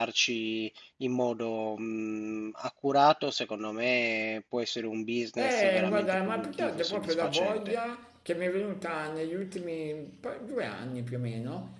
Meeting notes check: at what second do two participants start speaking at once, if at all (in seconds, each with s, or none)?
5.4 s